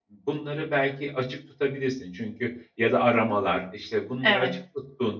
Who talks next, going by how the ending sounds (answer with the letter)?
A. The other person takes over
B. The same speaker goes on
B